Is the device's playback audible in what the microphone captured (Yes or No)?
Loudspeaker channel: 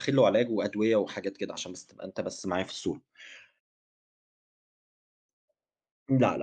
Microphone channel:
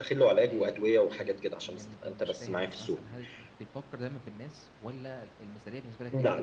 Yes